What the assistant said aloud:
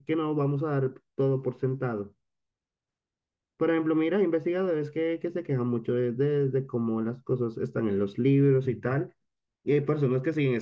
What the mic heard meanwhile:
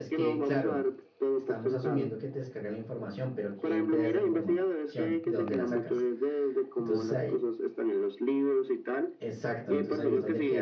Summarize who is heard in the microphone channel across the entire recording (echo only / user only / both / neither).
both